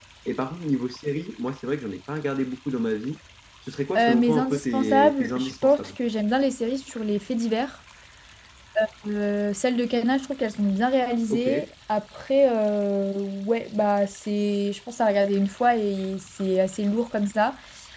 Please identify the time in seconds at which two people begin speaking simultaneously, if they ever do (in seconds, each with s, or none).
4.0 s